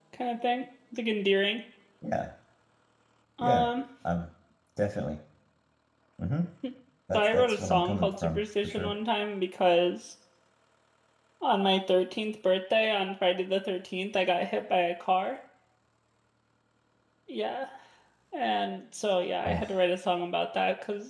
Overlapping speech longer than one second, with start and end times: 7.1-8.9

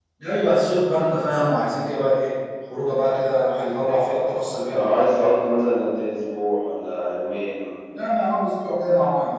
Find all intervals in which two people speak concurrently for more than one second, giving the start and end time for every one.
none

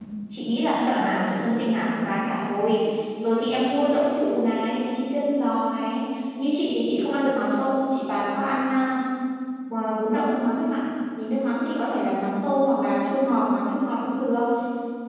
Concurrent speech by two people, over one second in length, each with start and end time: none

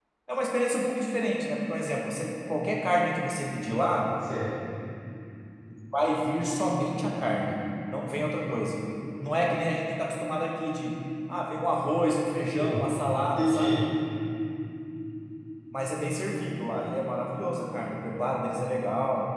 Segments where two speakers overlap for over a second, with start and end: none

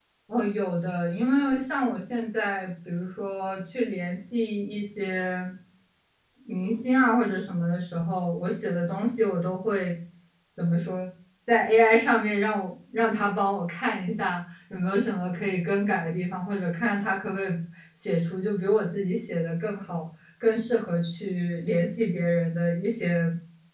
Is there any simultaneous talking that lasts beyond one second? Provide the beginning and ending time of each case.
none

